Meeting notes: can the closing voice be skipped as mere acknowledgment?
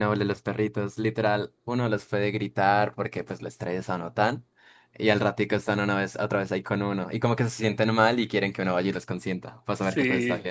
No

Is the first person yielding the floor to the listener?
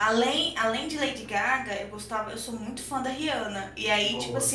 No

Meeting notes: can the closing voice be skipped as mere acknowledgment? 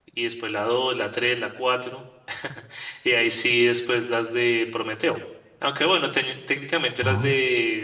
Yes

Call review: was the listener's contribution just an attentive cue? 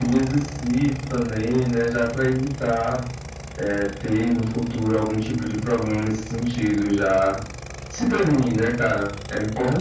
No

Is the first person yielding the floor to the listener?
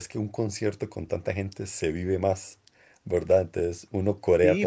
Yes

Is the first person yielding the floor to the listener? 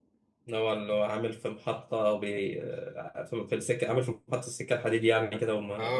Yes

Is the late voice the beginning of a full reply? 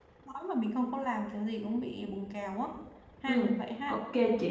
Yes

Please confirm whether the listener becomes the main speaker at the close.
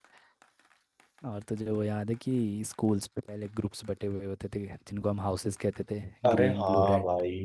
Yes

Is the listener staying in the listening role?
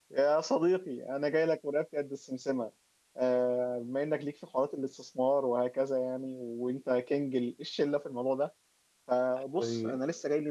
Yes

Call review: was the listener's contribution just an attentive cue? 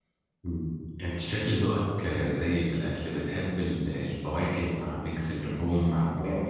No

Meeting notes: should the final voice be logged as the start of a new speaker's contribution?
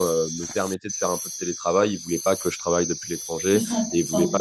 No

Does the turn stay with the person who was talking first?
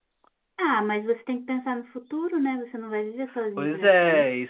No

